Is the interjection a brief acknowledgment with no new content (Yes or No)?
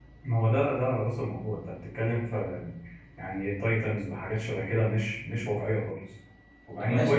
No